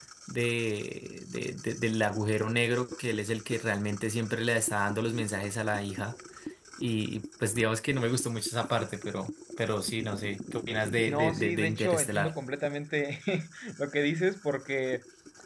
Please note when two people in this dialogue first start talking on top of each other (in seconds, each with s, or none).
11.1 s